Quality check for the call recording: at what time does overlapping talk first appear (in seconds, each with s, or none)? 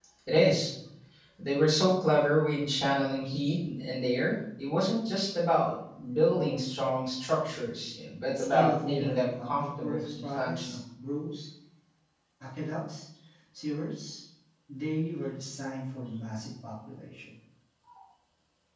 8.3 s